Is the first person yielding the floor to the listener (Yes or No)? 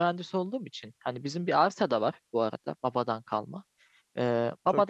No